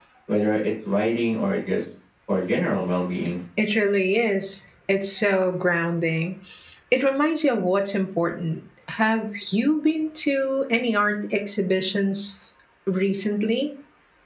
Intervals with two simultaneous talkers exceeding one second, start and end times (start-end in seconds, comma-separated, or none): none